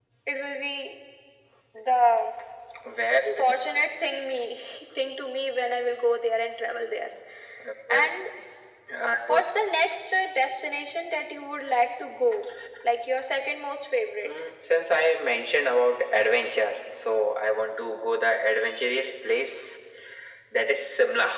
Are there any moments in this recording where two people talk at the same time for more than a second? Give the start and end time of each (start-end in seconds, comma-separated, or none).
none